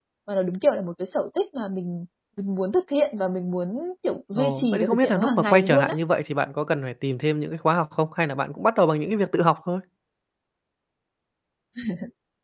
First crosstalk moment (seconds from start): 4.3 s

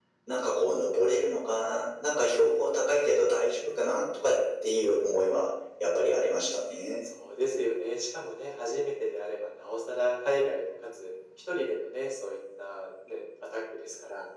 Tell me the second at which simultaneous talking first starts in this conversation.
none

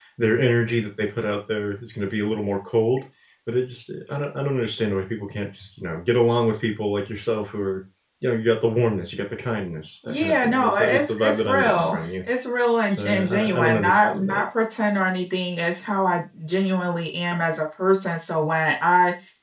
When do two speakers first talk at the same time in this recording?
10.1 s

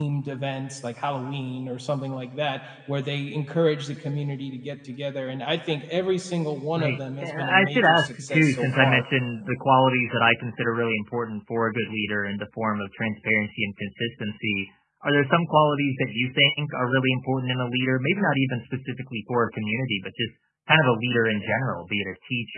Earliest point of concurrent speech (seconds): 6.8 s

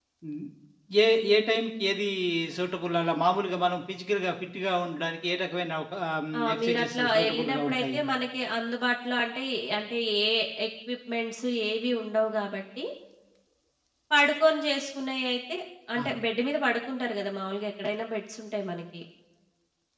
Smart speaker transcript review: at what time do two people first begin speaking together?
6.3 s

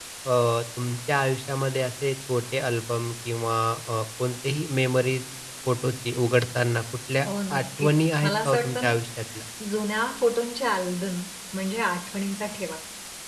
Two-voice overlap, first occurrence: 7.3 s

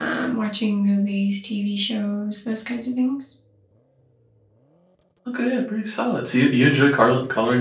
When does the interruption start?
none

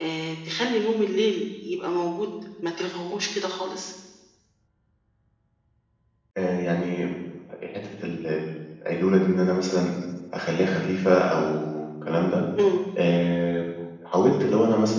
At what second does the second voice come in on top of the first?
none

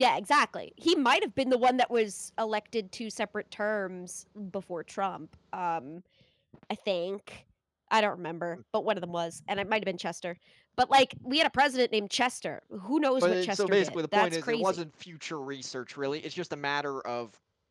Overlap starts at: 13.2 s

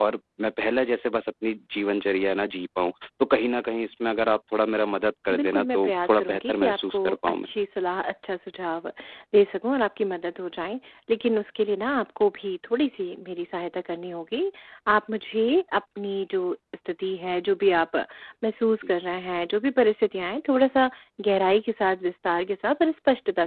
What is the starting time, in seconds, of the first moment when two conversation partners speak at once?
5.3 s

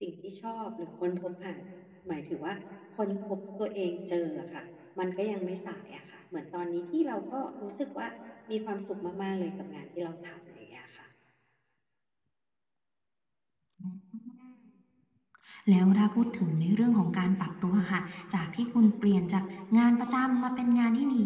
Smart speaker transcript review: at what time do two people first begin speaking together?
none

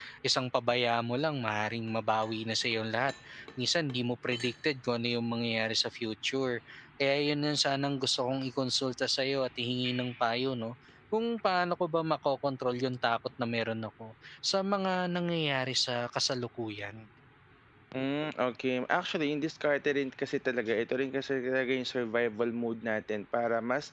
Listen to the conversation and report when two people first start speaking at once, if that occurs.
none

